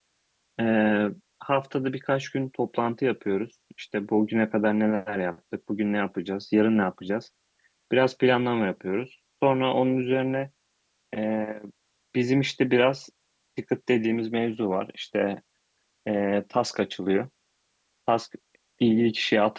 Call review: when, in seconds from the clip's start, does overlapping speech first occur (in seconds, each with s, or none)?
none